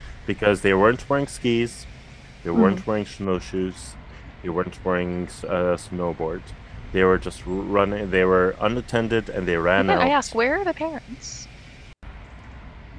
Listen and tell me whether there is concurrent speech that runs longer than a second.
No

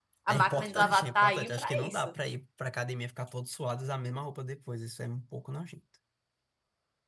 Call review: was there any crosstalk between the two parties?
Yes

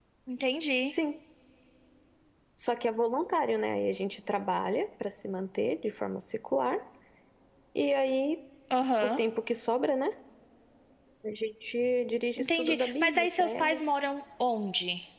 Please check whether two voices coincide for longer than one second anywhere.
Yes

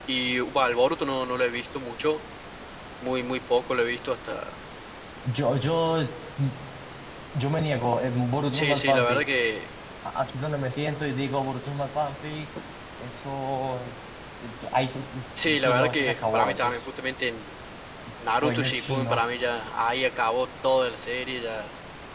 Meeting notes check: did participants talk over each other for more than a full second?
Yes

